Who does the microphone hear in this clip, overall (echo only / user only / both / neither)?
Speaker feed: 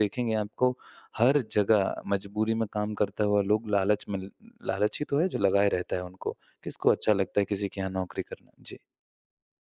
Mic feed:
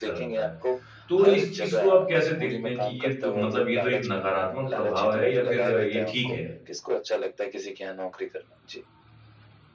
both